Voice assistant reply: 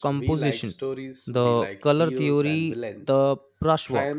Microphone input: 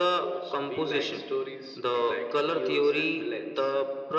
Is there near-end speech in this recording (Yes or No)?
No